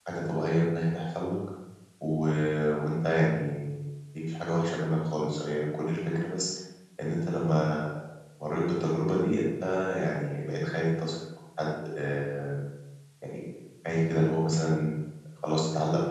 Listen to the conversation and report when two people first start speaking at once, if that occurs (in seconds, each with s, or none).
none